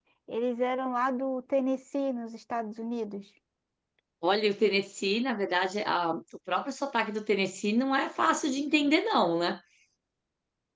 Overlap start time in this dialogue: none

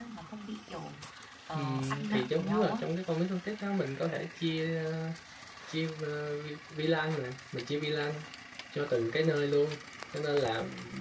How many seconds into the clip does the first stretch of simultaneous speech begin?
2 s

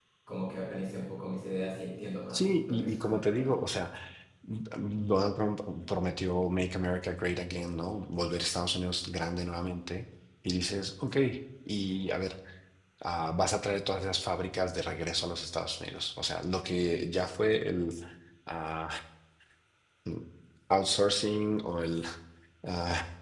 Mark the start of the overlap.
2 s

